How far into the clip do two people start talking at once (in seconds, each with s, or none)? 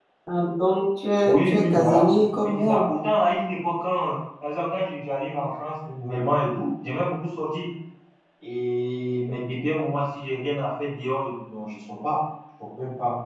1.2 s